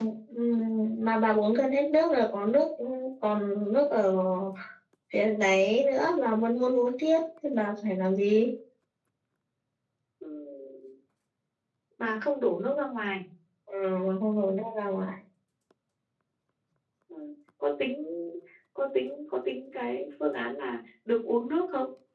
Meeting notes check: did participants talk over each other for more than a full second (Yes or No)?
No